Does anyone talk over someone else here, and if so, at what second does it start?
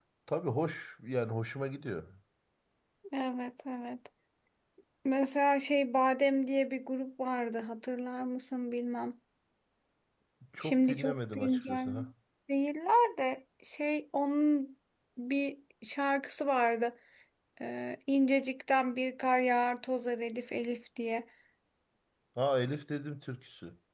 10.6 s

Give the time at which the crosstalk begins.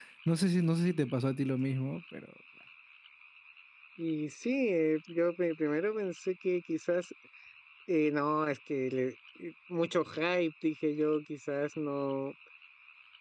none

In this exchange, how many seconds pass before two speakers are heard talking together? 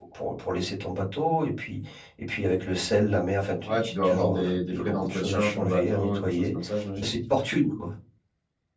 3.6 s

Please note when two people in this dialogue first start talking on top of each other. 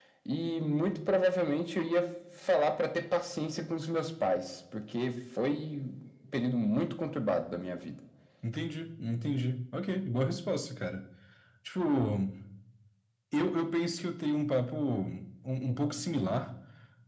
none

